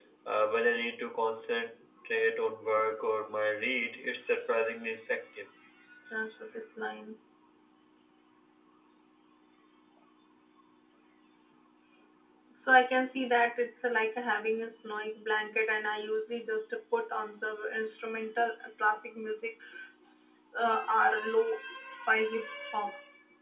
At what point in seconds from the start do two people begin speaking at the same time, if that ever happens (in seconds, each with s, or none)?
none